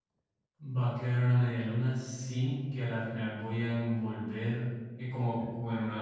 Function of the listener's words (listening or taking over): listening